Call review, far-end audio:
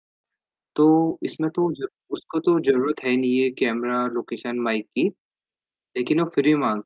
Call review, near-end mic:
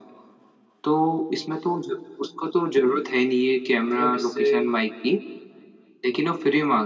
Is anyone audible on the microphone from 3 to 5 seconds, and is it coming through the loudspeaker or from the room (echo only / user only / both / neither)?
both